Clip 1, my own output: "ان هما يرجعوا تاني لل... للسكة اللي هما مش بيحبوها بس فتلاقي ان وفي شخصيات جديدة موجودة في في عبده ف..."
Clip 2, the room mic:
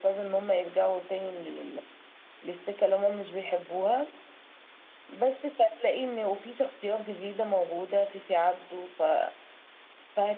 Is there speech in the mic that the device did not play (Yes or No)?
No